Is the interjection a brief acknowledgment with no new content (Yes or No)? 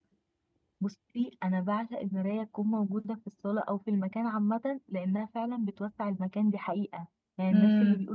Yes